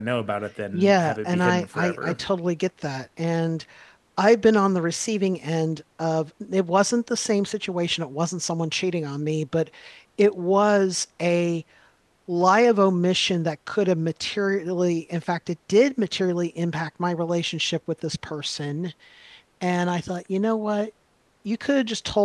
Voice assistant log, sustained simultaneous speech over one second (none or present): present